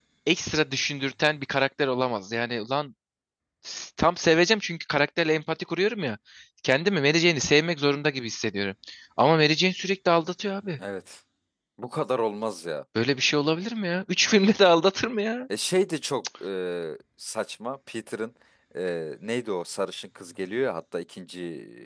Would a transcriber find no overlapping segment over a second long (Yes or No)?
Yes